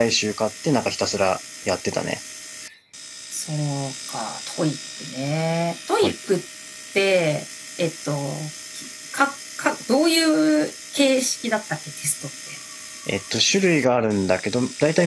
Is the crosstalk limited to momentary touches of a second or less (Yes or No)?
Yes